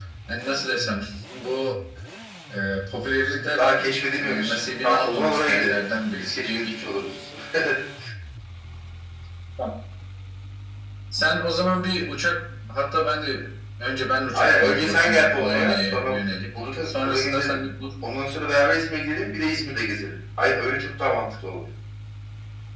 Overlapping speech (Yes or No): Yes